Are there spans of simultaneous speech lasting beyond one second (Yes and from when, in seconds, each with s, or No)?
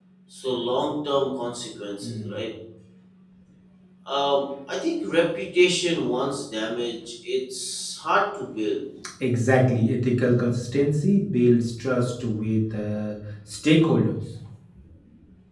No